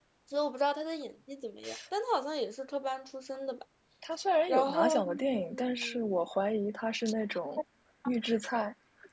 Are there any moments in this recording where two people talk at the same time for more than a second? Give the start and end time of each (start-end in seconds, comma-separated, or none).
4.5-6.2